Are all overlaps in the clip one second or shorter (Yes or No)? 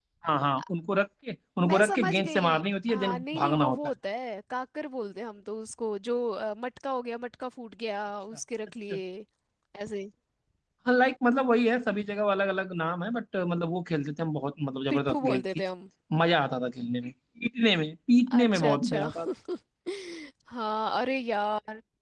No